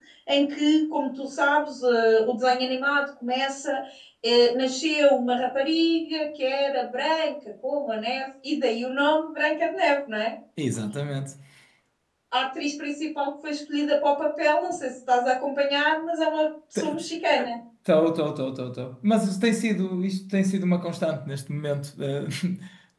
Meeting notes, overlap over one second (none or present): none